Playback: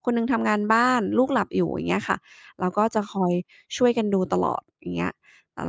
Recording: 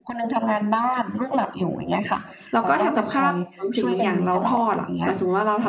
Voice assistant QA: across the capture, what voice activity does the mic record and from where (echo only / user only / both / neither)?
both